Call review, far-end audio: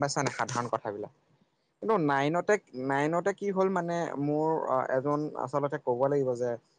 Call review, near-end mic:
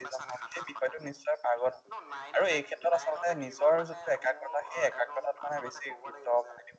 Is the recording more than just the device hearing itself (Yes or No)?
Yes